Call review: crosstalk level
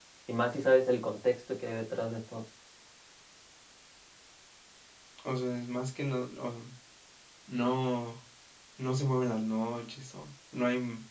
none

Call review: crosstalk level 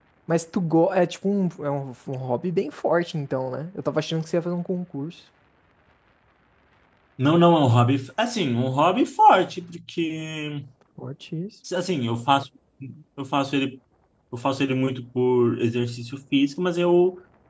none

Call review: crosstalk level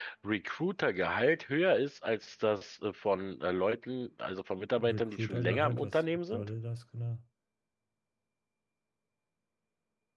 present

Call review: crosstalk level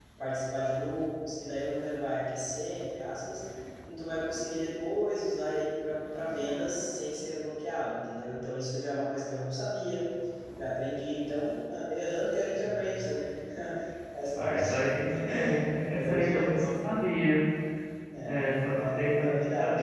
present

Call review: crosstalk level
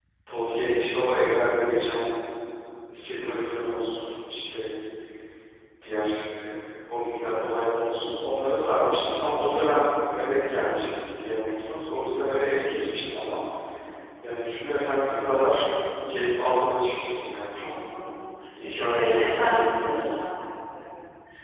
present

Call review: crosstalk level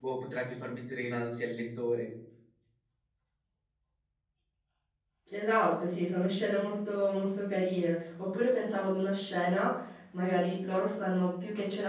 none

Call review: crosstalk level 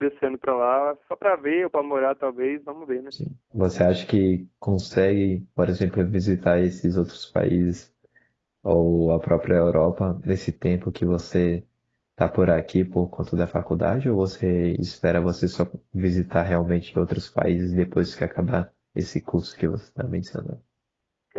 none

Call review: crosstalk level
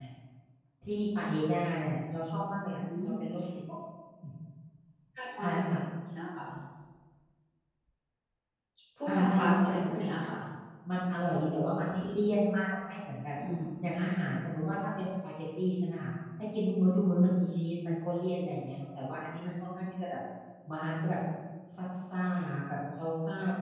present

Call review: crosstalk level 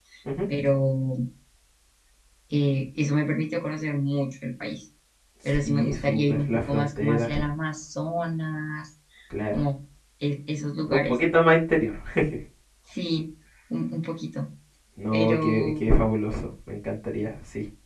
present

